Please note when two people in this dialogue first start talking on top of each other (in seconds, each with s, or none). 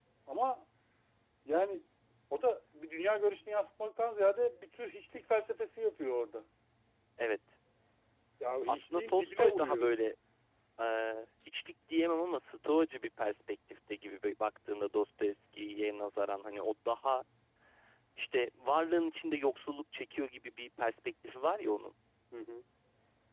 8.7 s